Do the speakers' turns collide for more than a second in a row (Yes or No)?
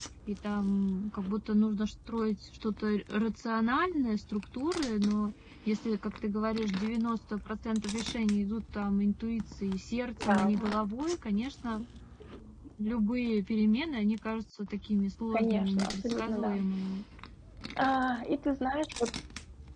Yes